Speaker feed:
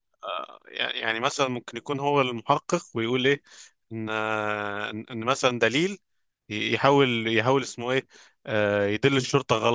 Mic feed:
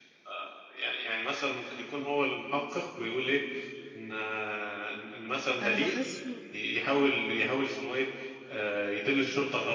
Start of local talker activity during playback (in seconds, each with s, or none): 5.6 s